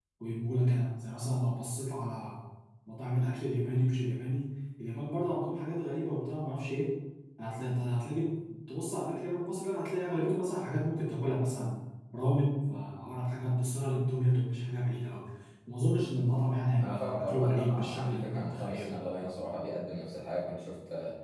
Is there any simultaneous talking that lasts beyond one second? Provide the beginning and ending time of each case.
16.8-18.9

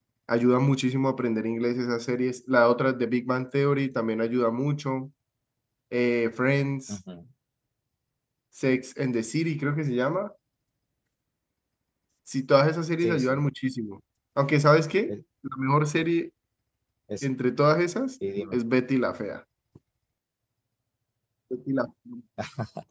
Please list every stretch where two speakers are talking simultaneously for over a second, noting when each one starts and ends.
none

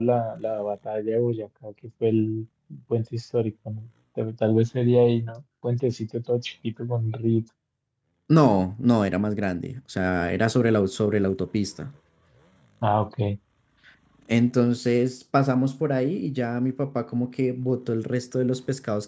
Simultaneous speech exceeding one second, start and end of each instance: none

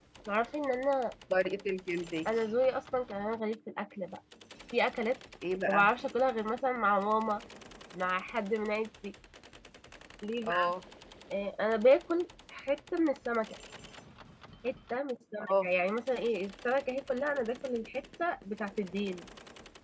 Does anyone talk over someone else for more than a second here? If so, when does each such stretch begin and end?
none

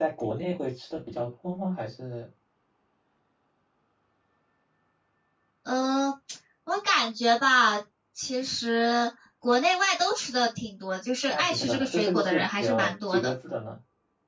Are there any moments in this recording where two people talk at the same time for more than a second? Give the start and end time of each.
11.3-13.3

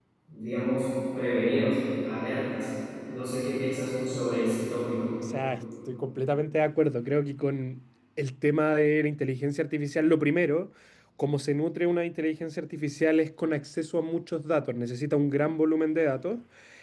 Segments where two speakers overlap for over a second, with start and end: none

